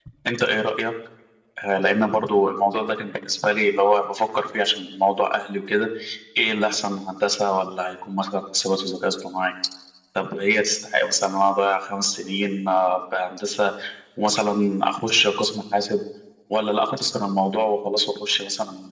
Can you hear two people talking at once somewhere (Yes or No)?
No